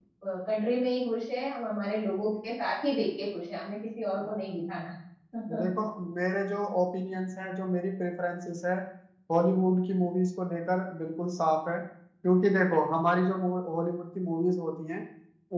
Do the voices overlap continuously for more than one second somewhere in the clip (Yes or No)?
No